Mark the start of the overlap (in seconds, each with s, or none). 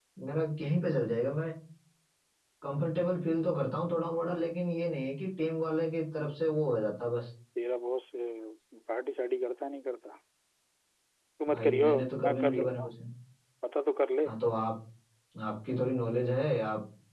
11.6 s